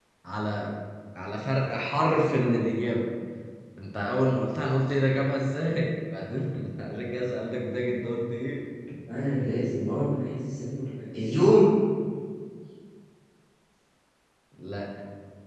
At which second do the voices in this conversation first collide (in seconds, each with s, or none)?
none